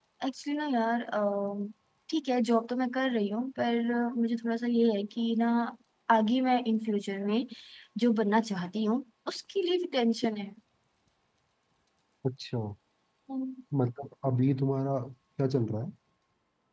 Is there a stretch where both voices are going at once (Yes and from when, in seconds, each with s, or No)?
No